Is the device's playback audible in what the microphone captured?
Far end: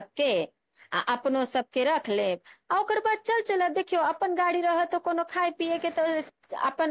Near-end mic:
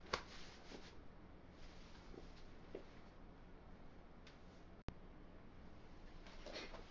No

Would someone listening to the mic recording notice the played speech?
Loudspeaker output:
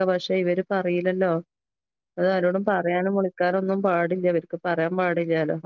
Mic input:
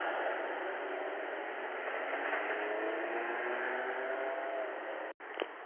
No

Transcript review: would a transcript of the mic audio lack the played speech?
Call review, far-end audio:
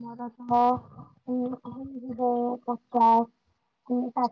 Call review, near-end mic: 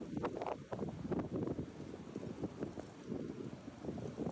Yes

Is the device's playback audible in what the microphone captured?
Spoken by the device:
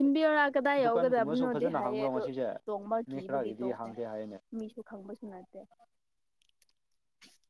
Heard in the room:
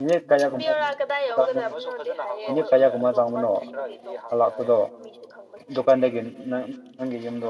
Yes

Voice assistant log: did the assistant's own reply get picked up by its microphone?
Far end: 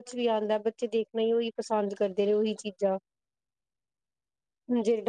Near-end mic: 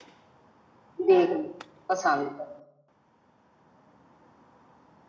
No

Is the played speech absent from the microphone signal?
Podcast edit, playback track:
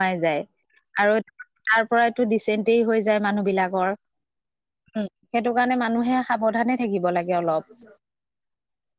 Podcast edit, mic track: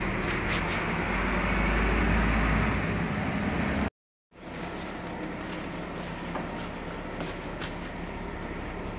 Yes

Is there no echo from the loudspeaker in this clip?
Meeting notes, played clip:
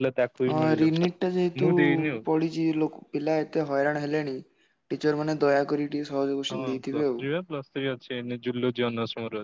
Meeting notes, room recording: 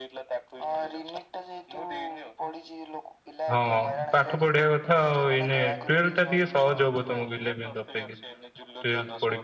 No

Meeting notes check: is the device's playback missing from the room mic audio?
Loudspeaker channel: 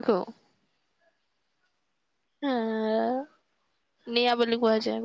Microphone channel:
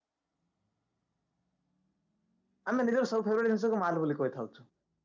Yes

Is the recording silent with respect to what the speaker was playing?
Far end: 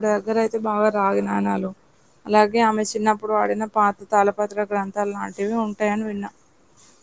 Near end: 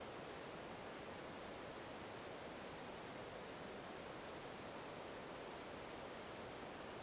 Yes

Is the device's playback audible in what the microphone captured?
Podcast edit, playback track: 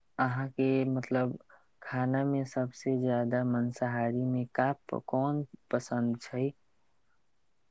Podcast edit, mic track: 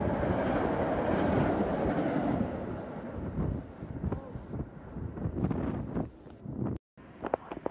No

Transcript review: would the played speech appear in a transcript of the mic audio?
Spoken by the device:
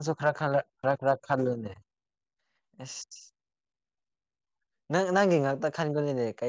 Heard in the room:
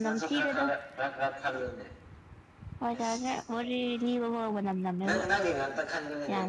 Yes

